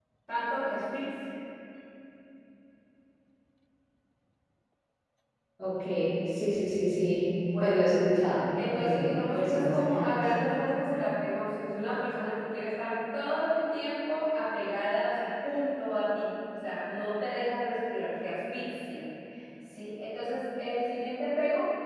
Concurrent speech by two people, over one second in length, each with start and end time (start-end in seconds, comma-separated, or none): 8.7-10.2